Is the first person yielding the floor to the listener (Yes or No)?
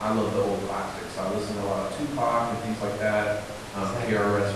No